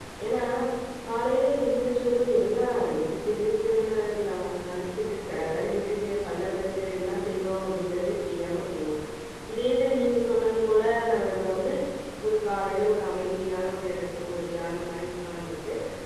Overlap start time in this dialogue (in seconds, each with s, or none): none